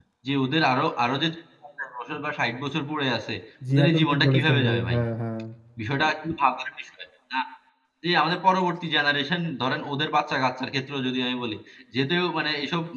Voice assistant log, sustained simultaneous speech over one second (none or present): present